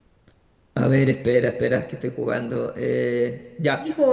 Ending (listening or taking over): taking over